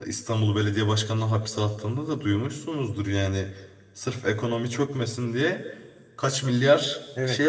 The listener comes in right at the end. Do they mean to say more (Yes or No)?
Yes